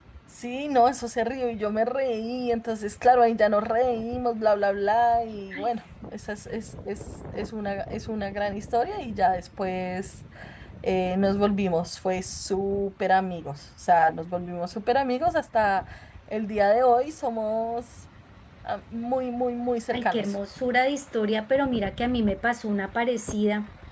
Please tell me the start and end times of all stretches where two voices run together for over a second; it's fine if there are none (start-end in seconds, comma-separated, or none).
none